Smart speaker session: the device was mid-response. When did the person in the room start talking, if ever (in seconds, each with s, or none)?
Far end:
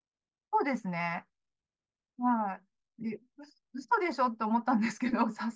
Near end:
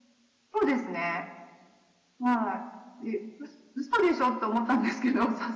none